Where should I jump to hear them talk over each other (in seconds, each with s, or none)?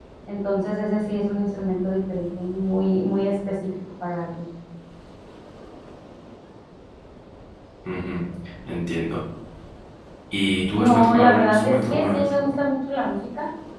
10.7 s